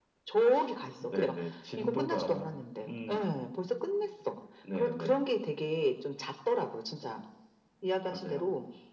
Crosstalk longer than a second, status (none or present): present